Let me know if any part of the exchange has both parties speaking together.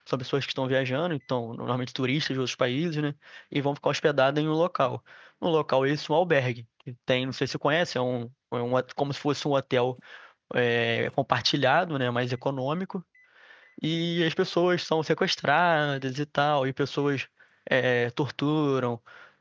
No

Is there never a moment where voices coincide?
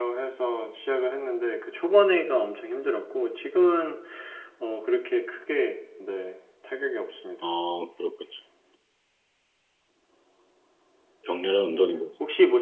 Yes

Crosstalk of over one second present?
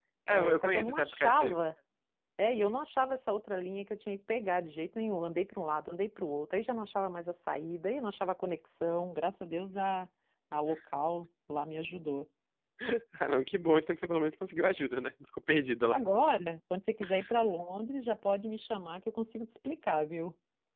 Yes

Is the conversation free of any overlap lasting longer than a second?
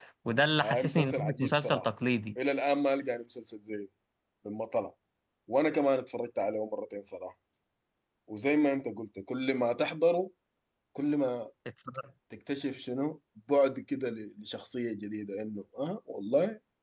No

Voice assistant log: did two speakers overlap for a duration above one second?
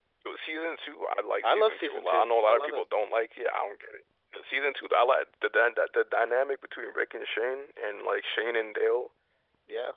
Yes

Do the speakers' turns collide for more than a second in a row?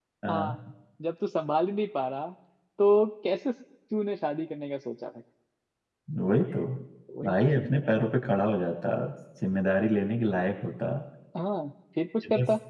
No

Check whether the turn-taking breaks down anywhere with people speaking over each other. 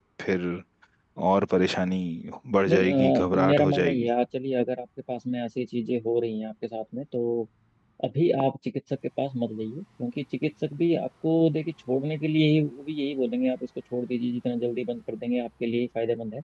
Yes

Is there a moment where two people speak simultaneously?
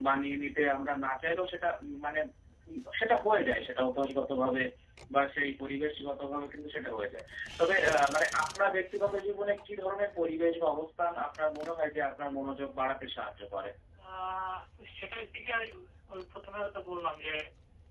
No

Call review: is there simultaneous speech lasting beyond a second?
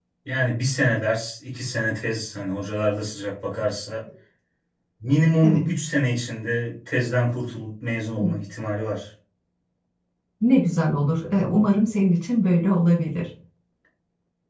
No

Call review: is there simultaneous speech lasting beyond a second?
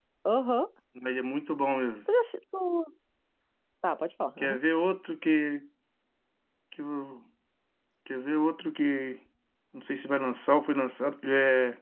No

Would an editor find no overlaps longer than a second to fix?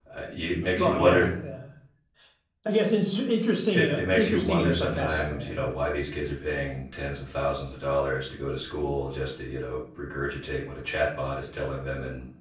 No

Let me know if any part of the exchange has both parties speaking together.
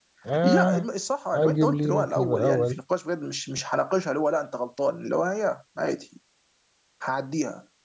Yes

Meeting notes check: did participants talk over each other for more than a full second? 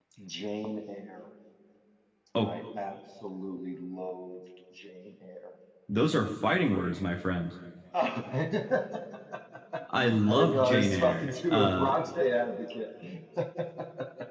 Yes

